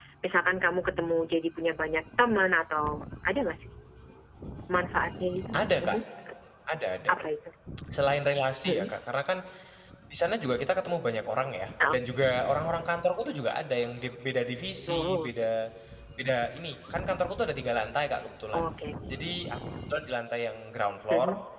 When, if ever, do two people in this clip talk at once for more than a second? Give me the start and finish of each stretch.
none

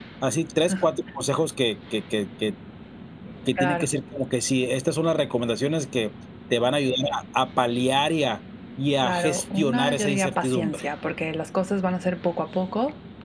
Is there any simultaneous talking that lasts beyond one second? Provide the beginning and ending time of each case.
9.0-10.8

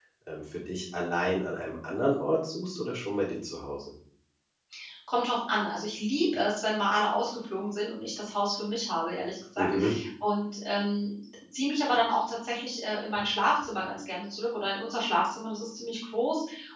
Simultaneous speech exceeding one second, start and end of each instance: none

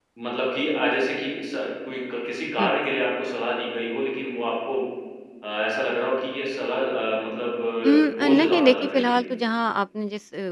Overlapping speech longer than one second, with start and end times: 7.9-9.2

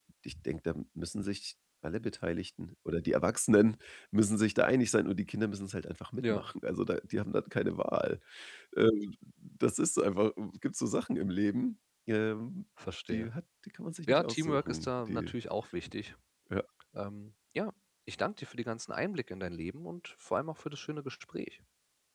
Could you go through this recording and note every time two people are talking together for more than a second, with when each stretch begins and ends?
14.1-15.3

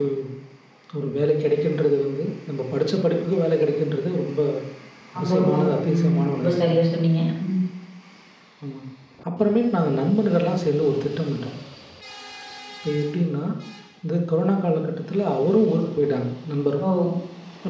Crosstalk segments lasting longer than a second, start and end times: 5.2-6.8

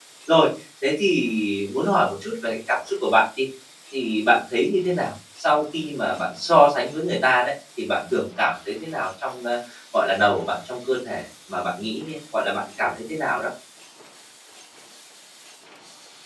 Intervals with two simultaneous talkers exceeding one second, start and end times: none

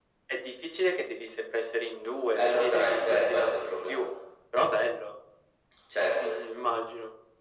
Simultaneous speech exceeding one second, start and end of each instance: 2.4-4.0

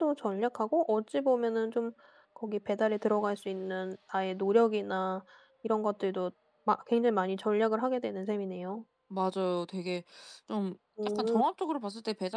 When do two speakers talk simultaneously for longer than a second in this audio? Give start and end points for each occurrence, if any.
none

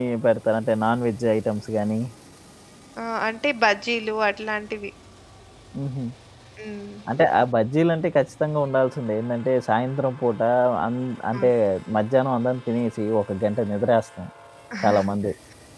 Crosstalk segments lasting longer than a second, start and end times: none

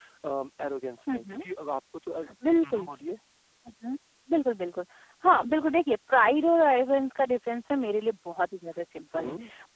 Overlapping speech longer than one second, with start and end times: none

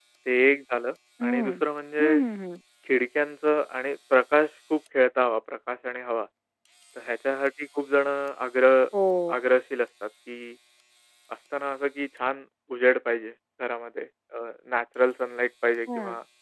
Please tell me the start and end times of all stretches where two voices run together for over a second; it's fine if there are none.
none

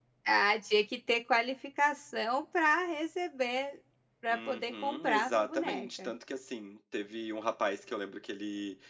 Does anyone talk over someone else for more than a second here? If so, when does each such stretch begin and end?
4.3-6.1

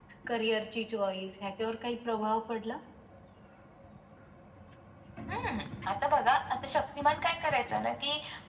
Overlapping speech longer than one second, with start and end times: none

